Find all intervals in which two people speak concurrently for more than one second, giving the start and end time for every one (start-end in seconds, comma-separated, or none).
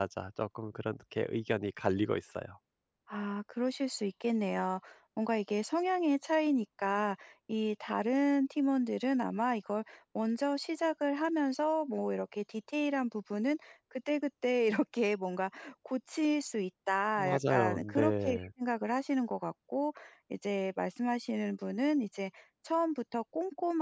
17.2-18.5